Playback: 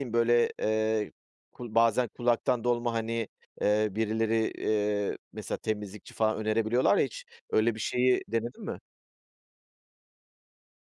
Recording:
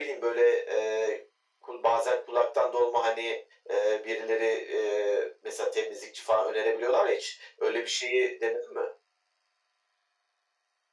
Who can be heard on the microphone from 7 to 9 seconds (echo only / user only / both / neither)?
echo only